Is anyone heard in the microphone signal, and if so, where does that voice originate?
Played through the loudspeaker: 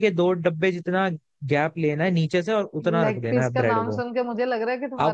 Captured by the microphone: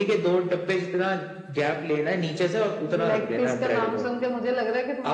echo only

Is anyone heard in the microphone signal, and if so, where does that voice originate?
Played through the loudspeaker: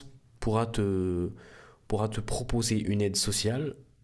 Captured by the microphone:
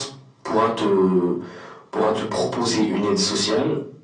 echo only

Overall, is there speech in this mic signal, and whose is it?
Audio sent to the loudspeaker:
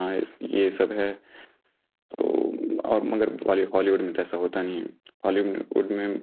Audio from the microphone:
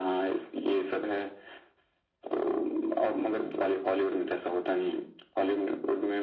echo only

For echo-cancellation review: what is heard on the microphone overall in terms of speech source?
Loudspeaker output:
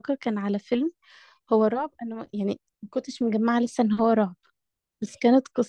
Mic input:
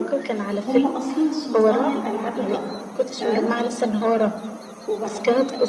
both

